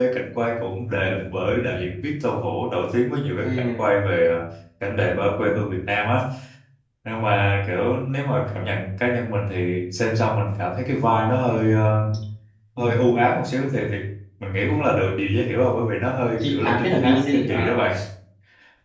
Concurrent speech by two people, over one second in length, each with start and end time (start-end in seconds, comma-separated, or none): 16.4-17.8